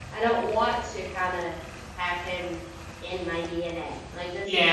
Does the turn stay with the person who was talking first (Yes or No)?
No